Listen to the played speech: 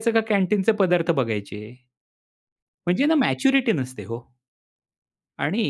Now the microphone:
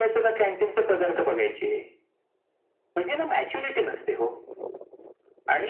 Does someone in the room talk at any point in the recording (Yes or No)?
No